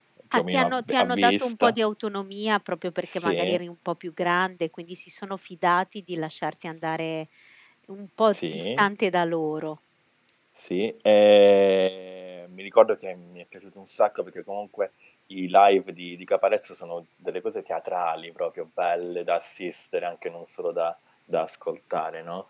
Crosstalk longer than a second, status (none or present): present